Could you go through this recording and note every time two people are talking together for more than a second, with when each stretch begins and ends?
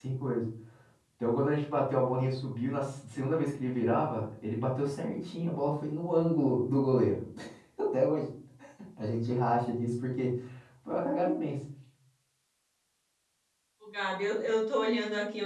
none

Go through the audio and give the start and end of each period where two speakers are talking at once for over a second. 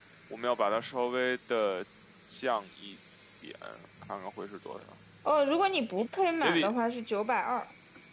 none

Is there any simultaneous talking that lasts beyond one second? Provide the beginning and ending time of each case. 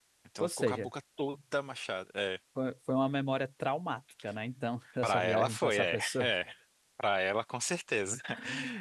5.0-6.3

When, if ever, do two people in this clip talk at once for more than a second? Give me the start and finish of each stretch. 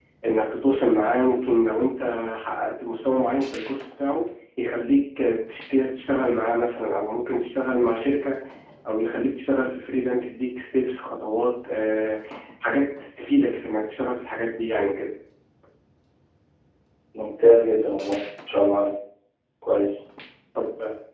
none

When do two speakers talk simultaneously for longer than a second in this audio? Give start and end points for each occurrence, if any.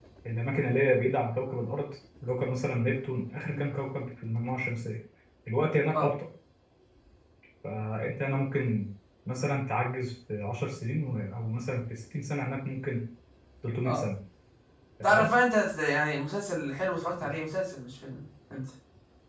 none

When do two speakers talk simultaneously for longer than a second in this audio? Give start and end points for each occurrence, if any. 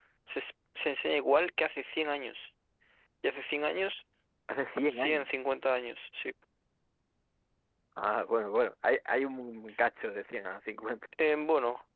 none

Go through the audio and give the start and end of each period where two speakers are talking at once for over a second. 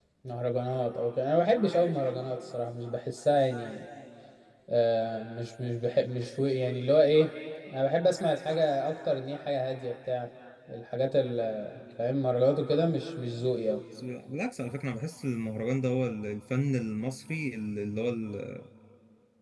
none

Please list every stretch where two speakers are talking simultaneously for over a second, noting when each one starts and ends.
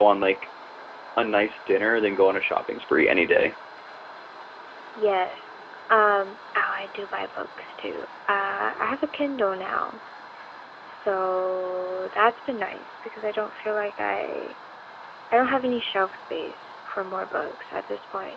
none

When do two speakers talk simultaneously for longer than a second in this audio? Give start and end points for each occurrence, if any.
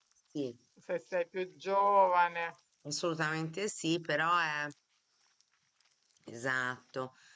none

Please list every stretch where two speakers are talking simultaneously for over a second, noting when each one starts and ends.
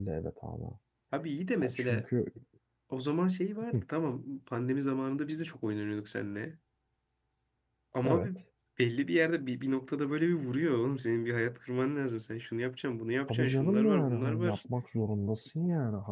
13.3-14.6

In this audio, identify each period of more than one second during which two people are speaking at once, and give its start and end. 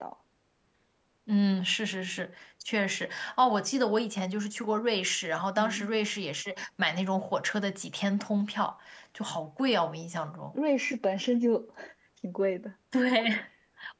none

